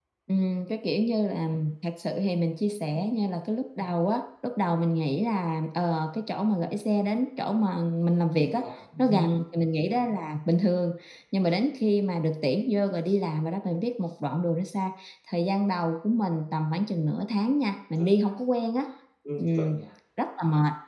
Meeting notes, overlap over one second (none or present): none